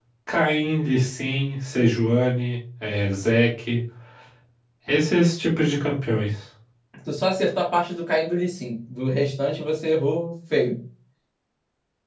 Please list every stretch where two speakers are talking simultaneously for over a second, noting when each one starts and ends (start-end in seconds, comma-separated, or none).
none